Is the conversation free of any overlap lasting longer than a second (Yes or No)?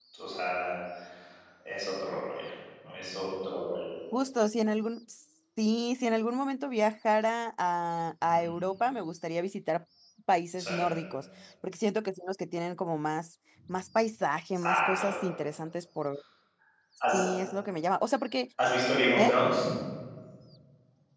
Yes